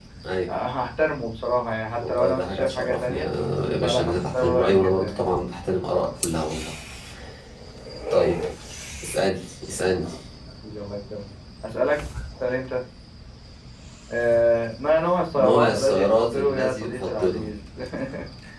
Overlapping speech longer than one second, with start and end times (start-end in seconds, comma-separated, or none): 2.0-3.2, 3.8-5.2, 15.4-17.5